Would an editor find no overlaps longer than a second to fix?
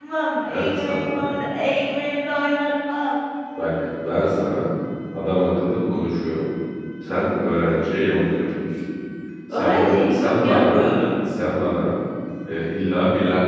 No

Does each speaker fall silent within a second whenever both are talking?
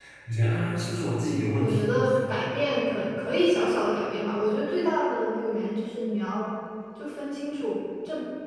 Yes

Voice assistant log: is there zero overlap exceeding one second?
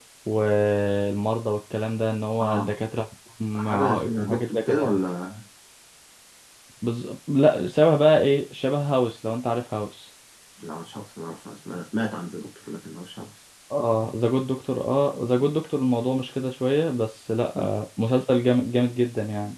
No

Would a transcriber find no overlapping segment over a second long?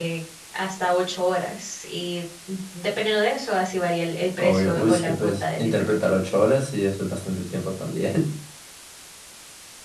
No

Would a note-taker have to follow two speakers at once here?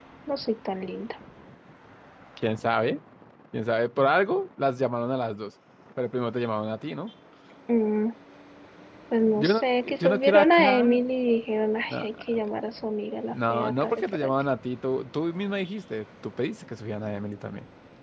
Yes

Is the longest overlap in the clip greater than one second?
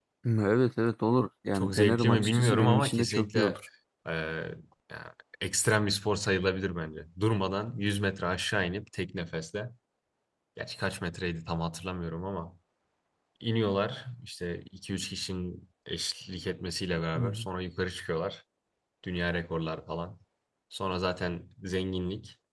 Yes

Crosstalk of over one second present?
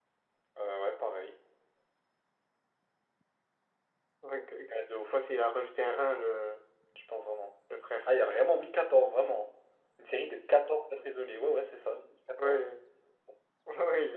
No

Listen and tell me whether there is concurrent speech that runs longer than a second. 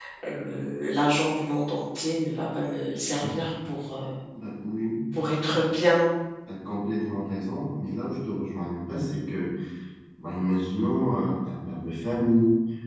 No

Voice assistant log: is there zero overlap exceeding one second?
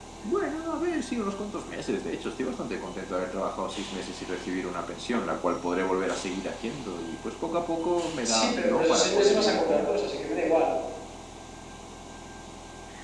No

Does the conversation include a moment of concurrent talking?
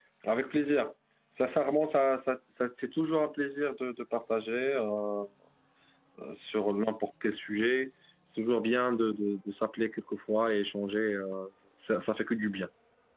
No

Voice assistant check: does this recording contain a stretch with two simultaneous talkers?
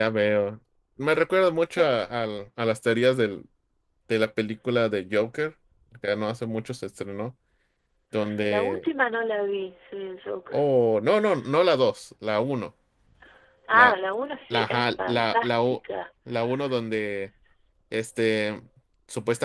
Yes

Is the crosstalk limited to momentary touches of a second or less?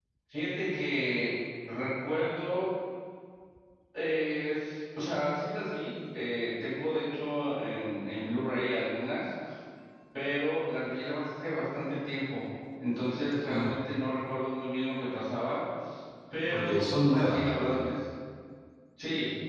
No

